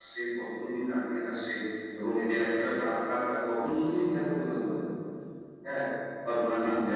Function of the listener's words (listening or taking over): taking over